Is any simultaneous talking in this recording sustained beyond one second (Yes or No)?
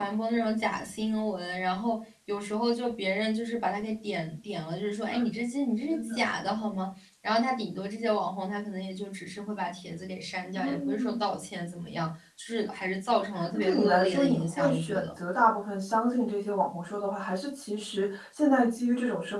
Yes